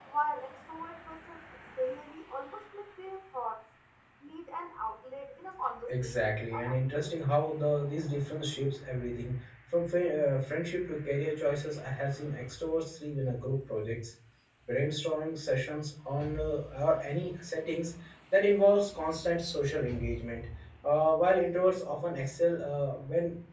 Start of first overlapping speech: 5.9 s

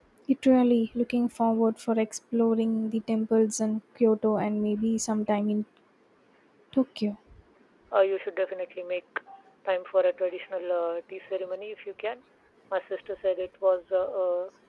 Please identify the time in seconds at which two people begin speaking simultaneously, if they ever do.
none

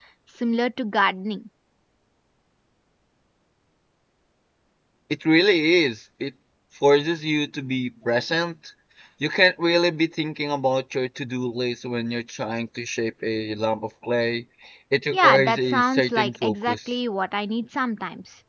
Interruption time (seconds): 15.1 s

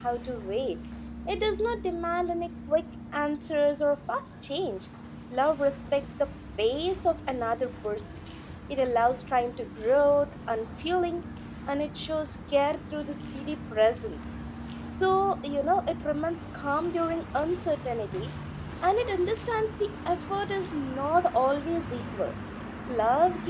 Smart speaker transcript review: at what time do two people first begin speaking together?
none

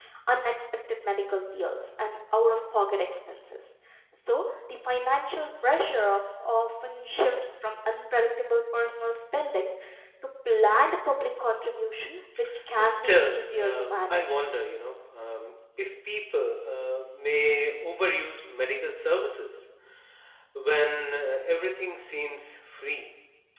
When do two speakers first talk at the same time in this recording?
12.8 s

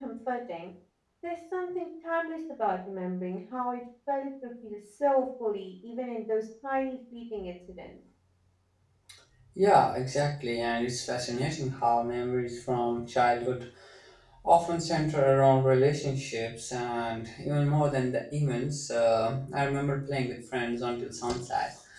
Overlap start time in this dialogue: none

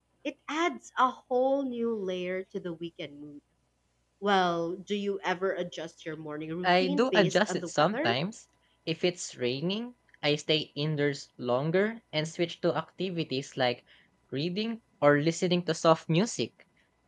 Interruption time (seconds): 6.6 s

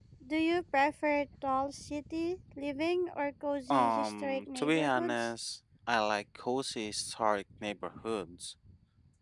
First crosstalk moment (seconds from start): 3.7 s

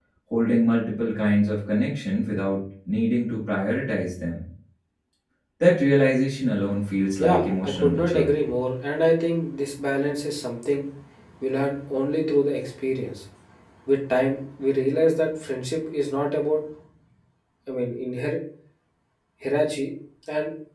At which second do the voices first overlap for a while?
7.2 s

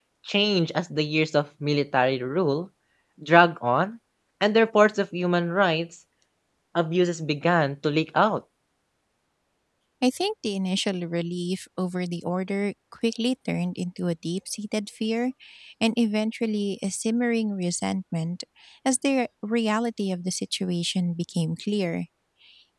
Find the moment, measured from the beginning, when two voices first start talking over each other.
none

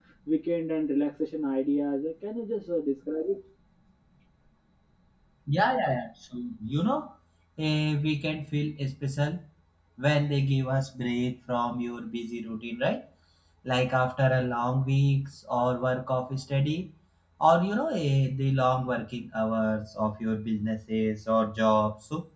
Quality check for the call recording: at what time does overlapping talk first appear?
none

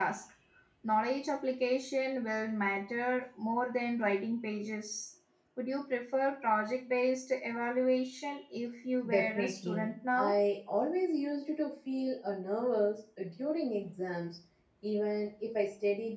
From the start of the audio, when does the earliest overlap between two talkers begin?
9.0 s

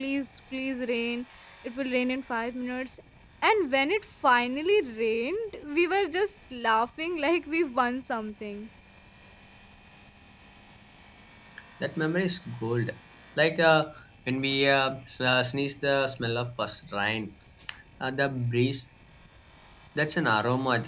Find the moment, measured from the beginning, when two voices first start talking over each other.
none

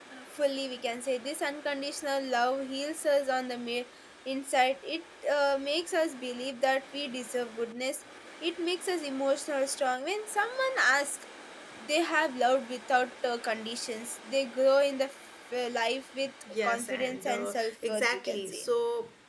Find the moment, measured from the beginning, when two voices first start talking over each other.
16.5 s

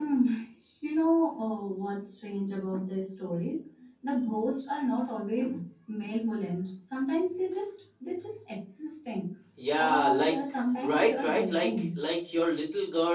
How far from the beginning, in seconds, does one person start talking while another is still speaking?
9.8 s

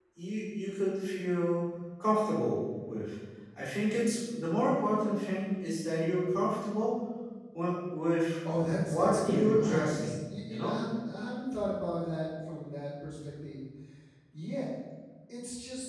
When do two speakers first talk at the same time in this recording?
8.9 s

